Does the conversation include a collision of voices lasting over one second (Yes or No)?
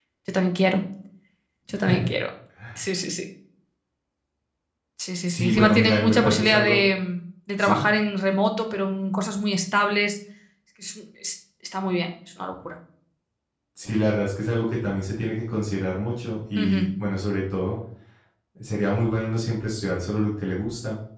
Yes